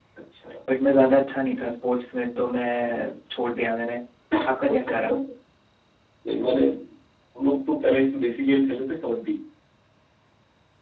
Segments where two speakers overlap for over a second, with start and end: none

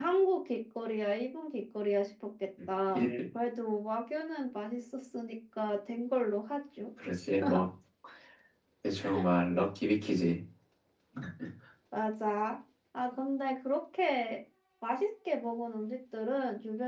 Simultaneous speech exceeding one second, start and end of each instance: none

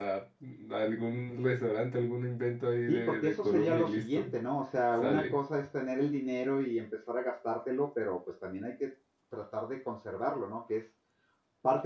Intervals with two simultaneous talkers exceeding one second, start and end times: 2.9-4.3

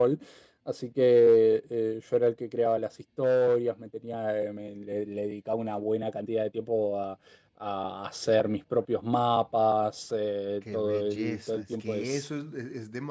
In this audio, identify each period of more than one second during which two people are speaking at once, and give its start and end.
10.7-12.3

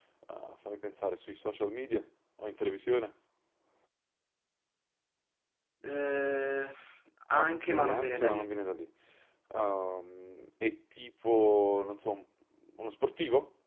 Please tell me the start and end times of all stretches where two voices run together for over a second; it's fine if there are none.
7.3-8.5

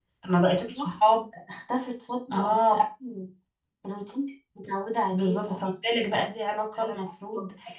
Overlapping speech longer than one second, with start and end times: none

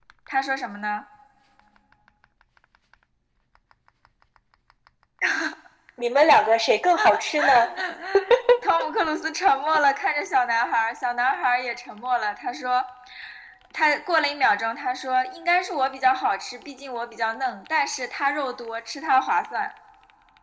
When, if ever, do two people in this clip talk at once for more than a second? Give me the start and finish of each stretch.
none

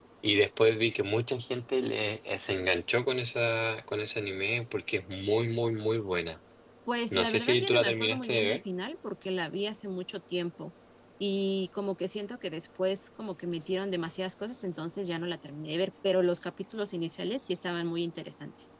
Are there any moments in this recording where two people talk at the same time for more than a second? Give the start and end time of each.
7.1-8.6

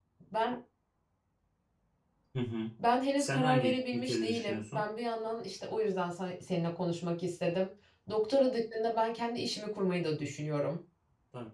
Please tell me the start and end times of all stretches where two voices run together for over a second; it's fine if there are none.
3.2-4.8

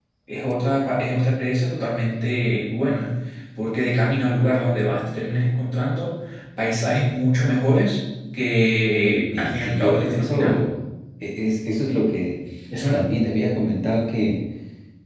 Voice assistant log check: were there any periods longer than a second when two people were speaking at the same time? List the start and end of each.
9.3-10.6

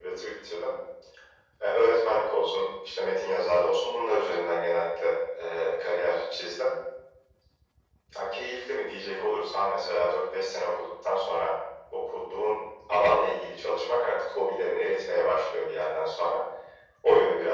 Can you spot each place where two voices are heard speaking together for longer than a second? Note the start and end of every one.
none

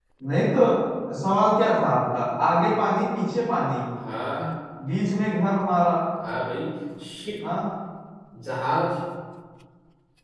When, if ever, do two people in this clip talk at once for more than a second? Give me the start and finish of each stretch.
none

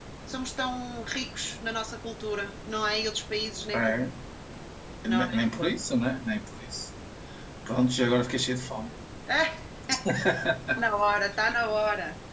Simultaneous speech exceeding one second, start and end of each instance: none

